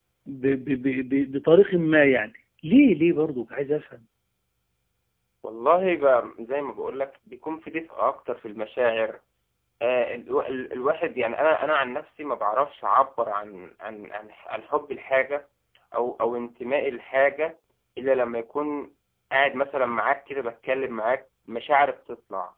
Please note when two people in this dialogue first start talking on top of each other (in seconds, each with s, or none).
none